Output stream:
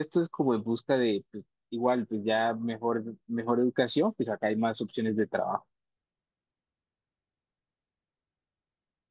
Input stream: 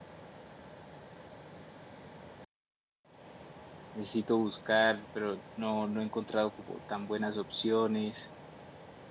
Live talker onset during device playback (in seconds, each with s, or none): 3.9 s